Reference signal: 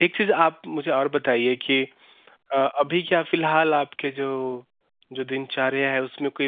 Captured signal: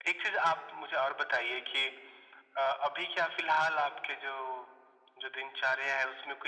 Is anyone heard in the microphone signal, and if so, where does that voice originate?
echo only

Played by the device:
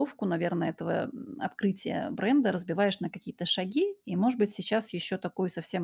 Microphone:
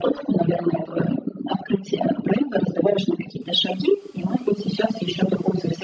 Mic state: echo only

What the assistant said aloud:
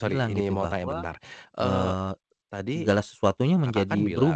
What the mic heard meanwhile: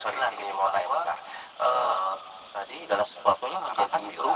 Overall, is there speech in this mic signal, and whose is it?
echo only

